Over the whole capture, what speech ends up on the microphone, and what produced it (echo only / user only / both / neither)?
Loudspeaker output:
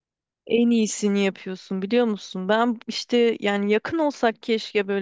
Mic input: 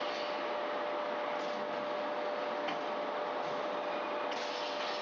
neither